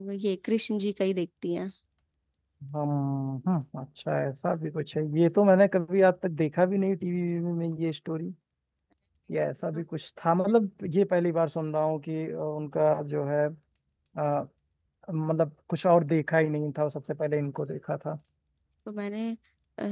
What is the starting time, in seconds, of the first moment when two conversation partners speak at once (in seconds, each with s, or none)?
none